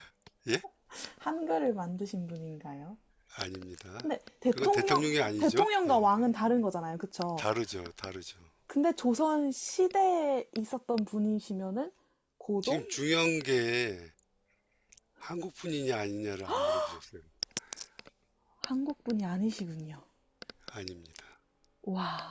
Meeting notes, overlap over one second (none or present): present